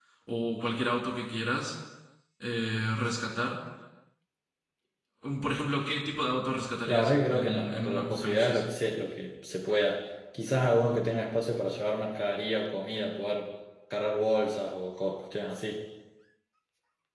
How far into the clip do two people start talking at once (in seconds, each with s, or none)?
6.9 s